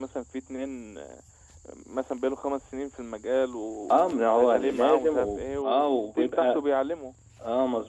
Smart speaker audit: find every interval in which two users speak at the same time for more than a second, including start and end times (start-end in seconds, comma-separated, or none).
3.9-6.6